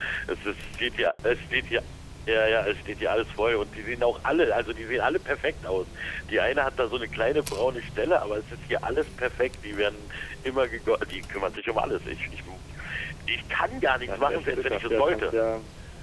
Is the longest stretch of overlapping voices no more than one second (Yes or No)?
No